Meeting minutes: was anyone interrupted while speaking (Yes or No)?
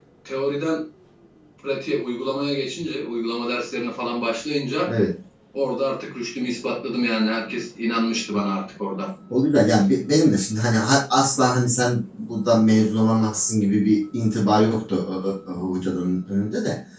No